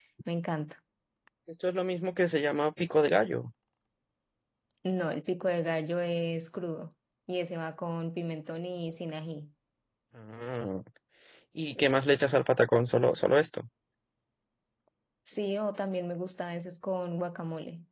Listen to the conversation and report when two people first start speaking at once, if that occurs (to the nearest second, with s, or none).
none